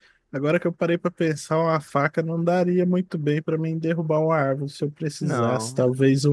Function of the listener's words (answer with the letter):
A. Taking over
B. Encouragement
B